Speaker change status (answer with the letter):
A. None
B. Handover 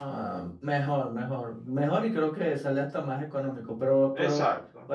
A